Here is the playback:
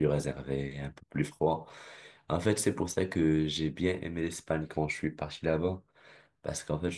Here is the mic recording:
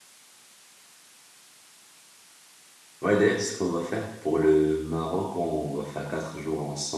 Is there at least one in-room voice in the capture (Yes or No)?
Yes